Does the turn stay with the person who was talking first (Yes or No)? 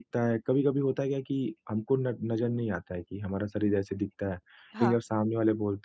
Yes